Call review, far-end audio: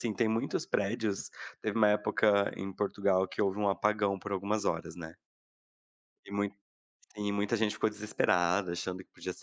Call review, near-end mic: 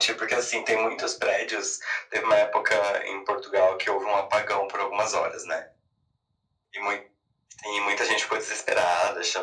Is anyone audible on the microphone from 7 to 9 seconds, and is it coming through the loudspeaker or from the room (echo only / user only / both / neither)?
echo only